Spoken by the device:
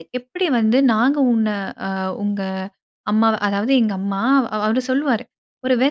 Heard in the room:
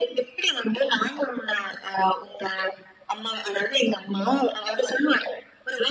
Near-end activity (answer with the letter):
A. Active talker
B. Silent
B